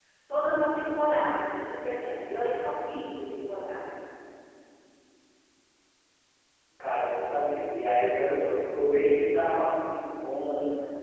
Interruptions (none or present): none